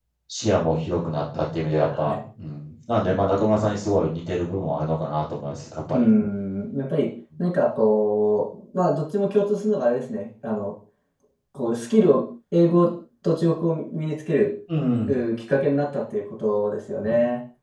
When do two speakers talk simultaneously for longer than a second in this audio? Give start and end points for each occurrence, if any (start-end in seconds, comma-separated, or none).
none